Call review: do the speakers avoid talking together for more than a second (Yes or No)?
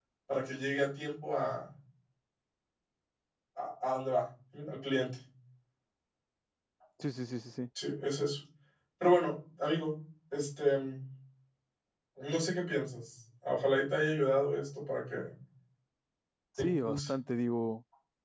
Yes